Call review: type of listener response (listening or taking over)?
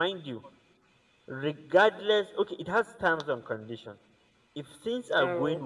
listening